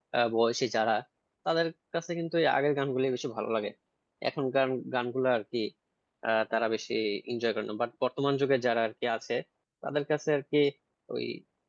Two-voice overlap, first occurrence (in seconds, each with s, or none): none